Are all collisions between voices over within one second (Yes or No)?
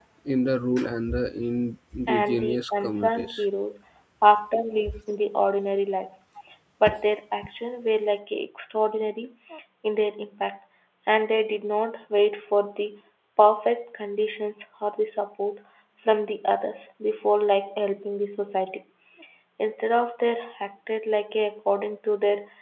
No